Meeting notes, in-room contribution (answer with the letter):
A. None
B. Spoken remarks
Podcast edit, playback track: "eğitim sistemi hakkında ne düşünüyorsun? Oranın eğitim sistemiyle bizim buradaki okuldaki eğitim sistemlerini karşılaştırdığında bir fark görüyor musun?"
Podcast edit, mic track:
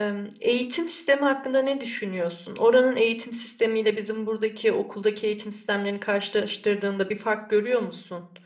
A